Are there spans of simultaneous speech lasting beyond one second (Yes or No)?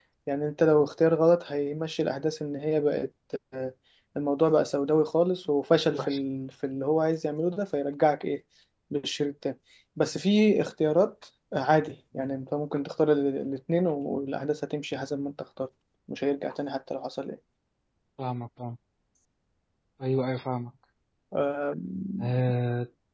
No